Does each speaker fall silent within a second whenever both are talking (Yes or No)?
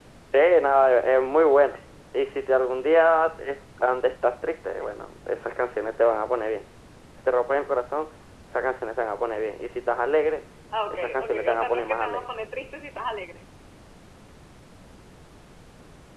No